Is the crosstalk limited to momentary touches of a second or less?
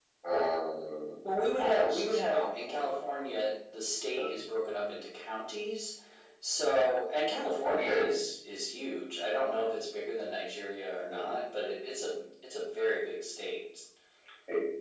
No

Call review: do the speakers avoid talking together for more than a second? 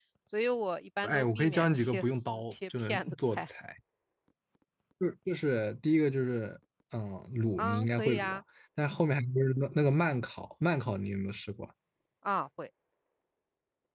No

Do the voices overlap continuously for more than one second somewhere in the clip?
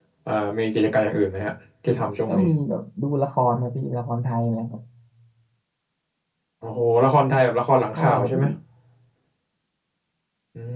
No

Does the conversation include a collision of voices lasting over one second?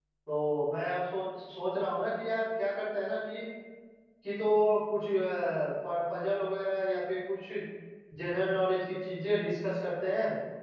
No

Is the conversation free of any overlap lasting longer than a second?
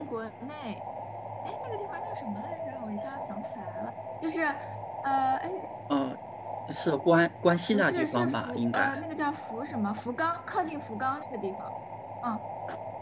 No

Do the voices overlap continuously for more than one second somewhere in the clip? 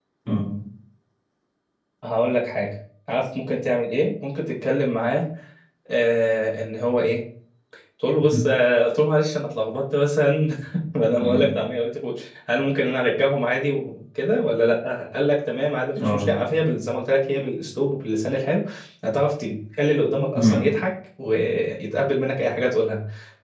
No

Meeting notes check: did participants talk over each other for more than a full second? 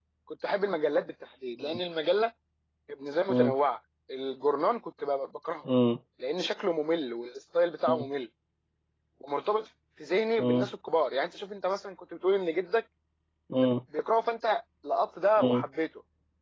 No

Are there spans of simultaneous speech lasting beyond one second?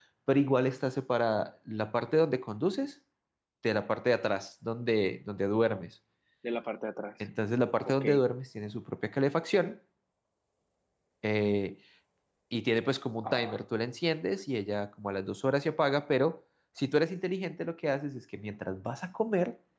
No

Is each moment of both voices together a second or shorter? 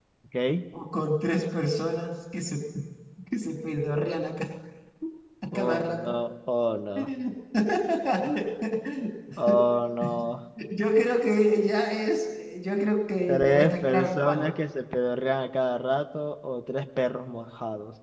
No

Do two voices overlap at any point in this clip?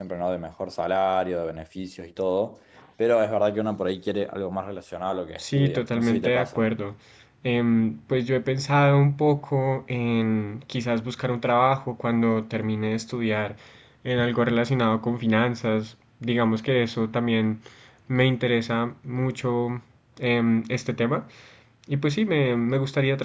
Yes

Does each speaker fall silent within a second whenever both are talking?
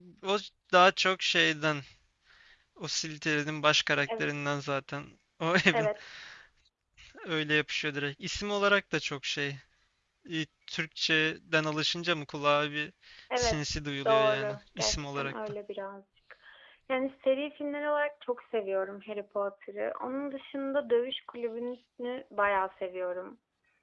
No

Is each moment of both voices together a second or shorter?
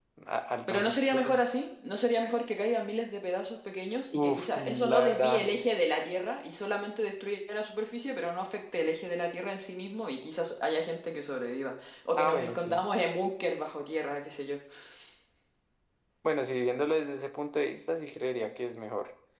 No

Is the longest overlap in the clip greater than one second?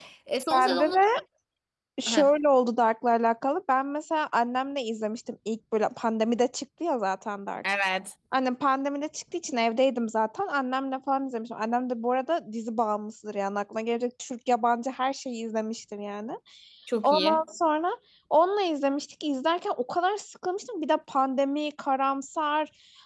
No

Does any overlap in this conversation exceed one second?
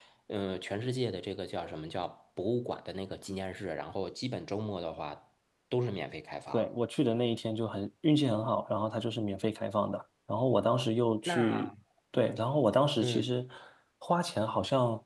No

